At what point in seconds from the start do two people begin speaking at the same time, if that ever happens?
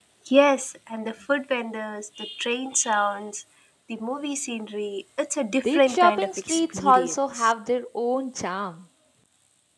5.5 s

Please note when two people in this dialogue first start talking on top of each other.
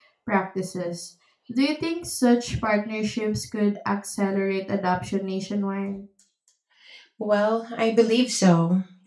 none

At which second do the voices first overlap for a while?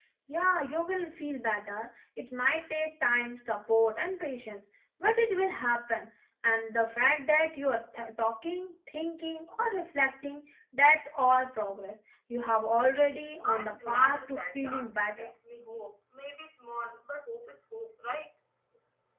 13.4 s

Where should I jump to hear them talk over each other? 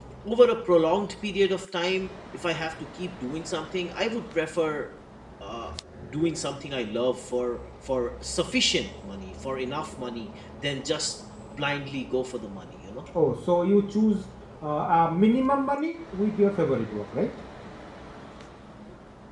none

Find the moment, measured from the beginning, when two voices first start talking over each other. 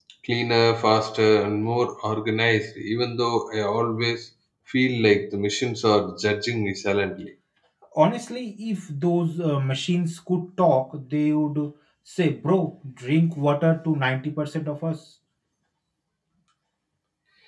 none

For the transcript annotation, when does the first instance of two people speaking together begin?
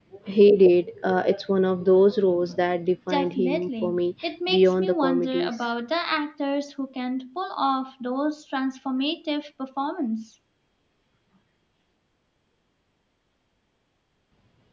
3.1 s

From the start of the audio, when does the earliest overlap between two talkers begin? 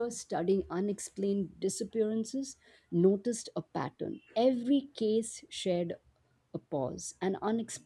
none

